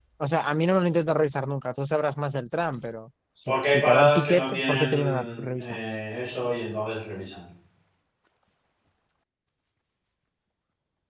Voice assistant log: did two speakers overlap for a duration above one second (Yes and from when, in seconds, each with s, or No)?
Yes, from 3.5 s